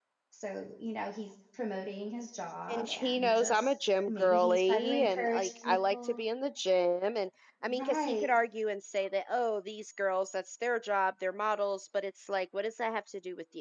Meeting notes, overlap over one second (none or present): present